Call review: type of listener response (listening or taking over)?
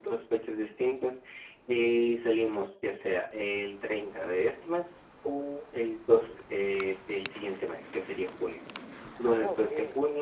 listening